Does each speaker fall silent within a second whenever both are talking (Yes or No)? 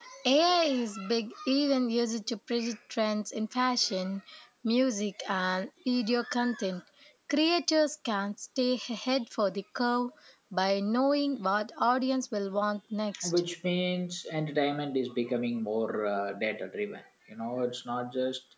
Yes